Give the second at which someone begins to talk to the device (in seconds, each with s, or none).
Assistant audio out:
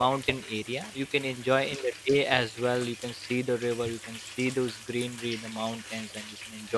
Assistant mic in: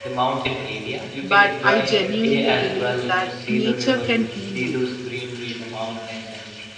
1.2 s